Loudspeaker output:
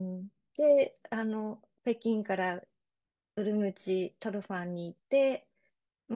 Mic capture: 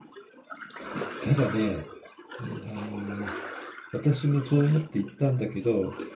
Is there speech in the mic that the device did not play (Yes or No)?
Yes